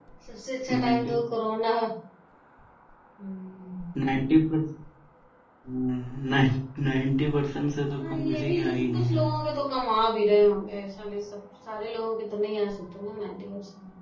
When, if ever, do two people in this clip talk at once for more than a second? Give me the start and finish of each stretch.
7.9-9.2

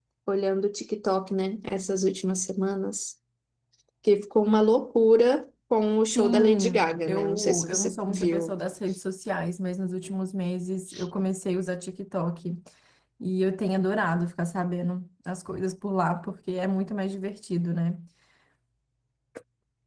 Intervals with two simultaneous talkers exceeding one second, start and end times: 6.2-8.5

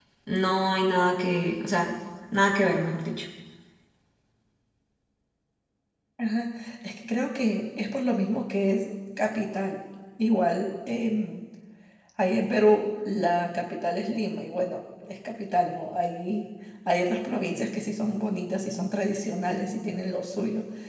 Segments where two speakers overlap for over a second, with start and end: none

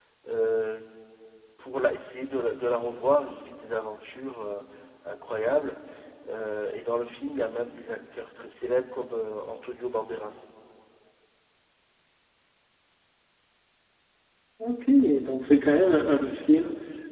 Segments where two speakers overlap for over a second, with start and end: none

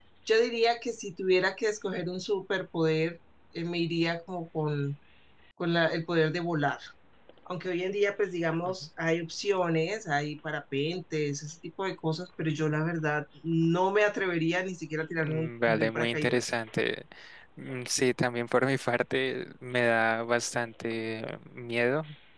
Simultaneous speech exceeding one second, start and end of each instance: 15.2-16.4

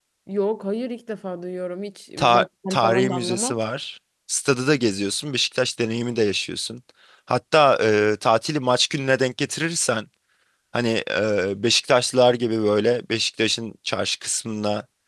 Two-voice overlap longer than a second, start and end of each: 2.2-3.6

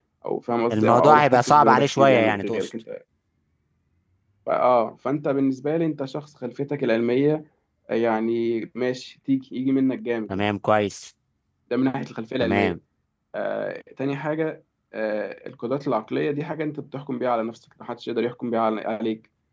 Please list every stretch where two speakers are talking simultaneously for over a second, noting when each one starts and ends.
0.7-2.7

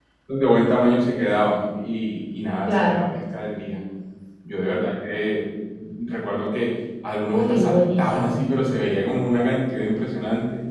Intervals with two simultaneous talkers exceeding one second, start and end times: 7.2-8.4

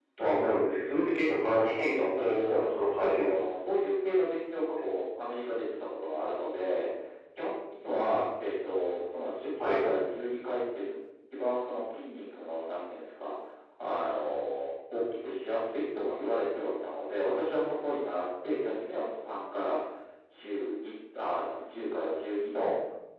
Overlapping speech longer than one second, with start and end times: 2.2-3.5

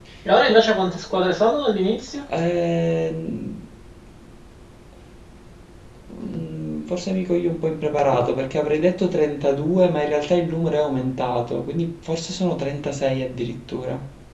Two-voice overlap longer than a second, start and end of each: none

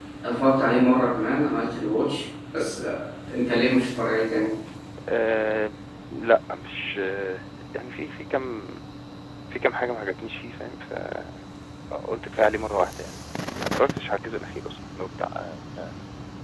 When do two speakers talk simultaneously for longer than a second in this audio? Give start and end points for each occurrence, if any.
none

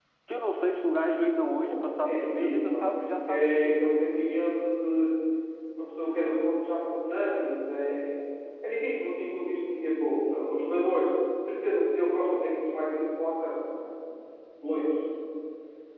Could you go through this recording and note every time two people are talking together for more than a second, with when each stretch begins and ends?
1.7-3.8

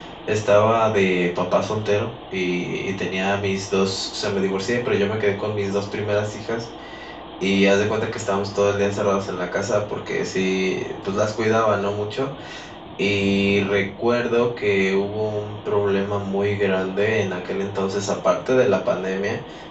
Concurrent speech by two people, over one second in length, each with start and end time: none

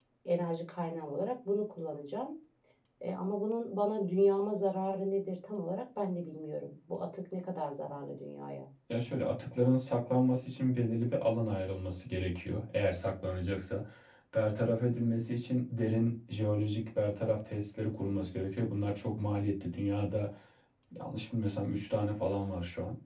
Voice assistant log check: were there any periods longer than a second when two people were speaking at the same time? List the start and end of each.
none

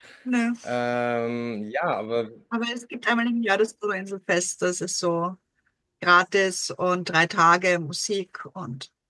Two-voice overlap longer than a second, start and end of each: none

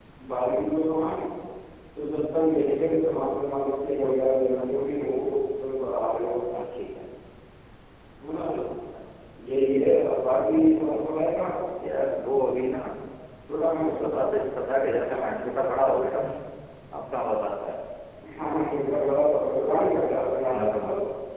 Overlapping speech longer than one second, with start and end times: none

